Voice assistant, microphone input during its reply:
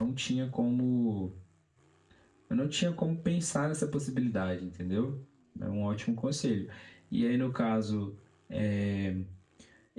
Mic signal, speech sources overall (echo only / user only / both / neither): user only